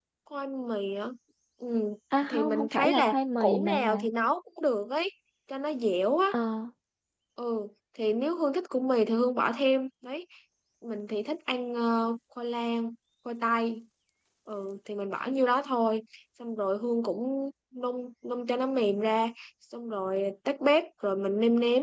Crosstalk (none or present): present